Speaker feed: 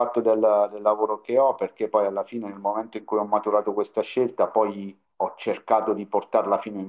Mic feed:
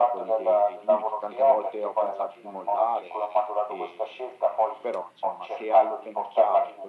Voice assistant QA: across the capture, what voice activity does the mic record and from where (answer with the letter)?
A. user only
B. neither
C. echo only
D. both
D